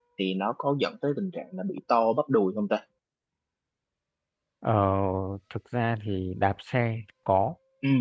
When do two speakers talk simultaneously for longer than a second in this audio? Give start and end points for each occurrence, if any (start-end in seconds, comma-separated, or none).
none